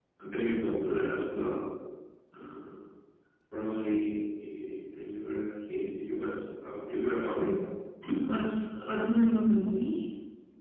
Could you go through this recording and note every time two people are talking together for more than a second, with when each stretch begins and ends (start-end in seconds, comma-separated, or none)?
none